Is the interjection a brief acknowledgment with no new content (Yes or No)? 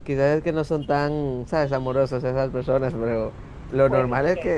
Yes